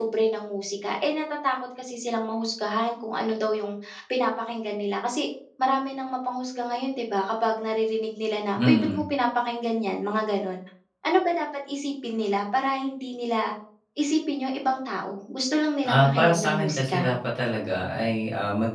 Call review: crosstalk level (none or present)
present